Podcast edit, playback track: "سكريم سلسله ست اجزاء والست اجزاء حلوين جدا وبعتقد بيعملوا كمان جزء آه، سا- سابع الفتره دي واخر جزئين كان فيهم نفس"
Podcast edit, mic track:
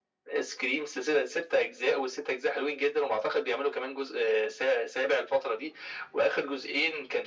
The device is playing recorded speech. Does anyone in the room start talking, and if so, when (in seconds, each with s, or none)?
none